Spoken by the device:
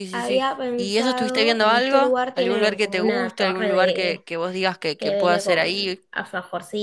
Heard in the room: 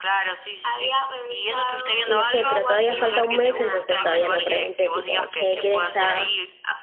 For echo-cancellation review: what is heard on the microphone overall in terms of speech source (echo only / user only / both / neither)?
both